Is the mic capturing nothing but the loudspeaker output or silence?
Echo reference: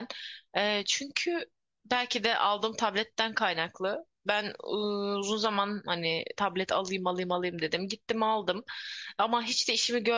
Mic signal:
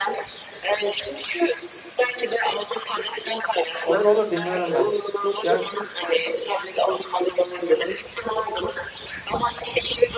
No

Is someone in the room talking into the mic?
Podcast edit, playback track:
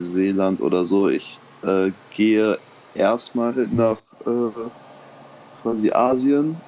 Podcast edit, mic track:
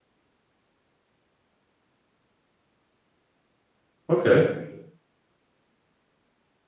Yes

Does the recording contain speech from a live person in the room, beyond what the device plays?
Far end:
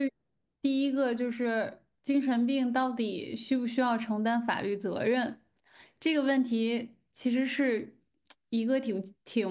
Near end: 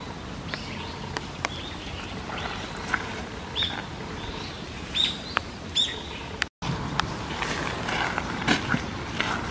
No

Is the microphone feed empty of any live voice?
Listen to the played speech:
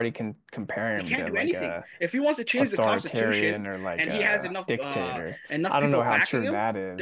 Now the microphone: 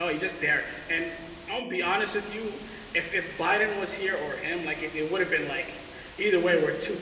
No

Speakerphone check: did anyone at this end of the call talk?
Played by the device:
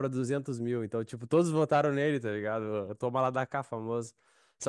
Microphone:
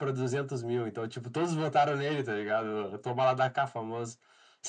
No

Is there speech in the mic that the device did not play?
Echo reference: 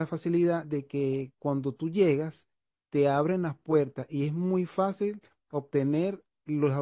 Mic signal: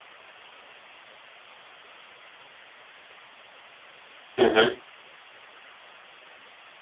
Yes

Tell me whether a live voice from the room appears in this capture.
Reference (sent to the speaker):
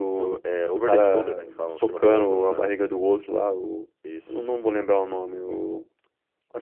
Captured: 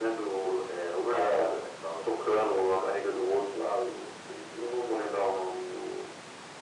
No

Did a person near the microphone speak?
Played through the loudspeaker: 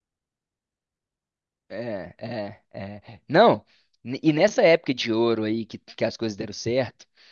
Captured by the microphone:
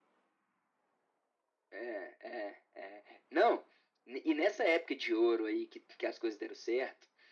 No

